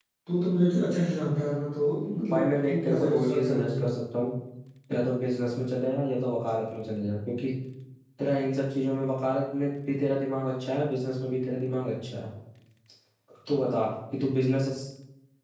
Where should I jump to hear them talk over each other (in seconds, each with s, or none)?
2.2 s